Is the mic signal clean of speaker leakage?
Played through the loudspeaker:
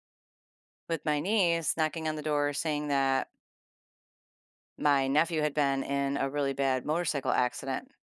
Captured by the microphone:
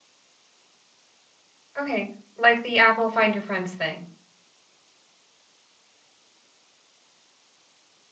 Yes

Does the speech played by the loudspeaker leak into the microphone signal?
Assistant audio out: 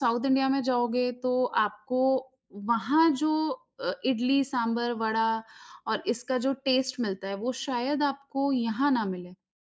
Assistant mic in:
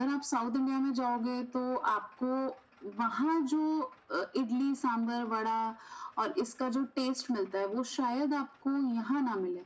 Yes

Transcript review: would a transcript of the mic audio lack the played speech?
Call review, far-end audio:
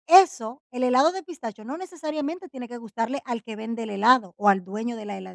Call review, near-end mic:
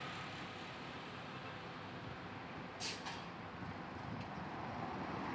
Yes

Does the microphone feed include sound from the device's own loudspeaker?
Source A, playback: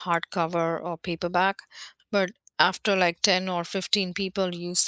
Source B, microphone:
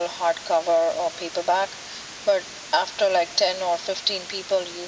Yes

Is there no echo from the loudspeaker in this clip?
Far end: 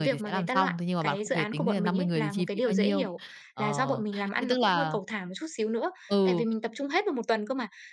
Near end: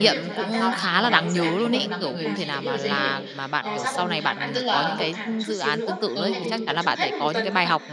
No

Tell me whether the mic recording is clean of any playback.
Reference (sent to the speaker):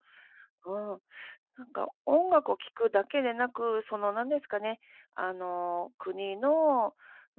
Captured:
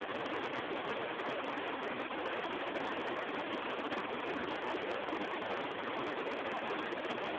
Yes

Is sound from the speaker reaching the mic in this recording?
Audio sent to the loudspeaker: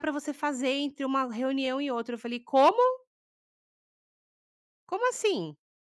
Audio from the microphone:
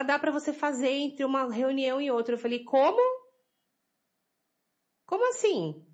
Yes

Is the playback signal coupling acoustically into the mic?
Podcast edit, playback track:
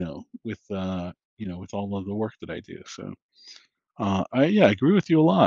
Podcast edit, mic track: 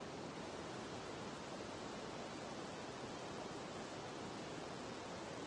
No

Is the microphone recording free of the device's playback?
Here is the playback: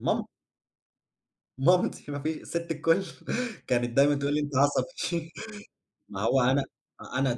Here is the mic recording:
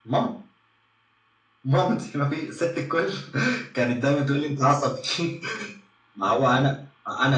No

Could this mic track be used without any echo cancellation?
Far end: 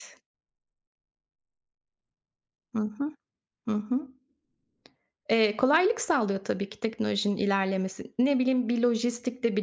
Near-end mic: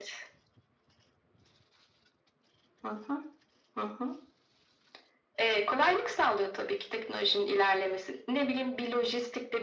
No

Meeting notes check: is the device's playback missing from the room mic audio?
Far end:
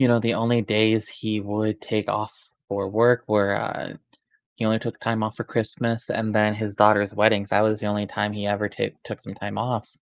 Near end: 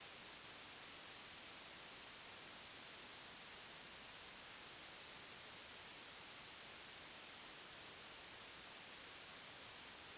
Yes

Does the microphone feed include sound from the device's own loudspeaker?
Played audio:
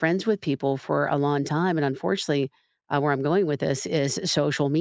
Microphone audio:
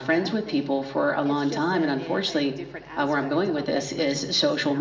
Yes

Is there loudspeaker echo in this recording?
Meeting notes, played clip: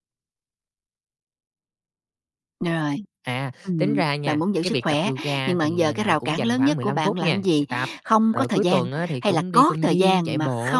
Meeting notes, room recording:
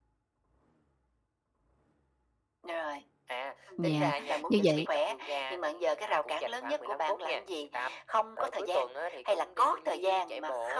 Yes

